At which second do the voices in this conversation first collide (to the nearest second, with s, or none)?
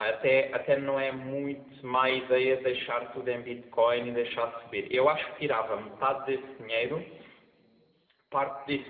none